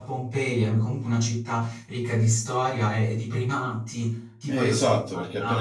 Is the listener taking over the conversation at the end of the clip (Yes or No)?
Yes